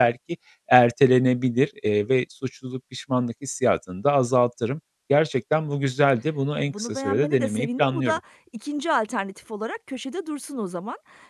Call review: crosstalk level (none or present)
present